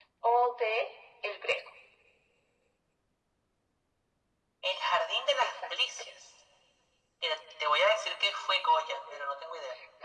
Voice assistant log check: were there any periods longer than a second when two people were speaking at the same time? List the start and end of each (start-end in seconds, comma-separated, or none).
none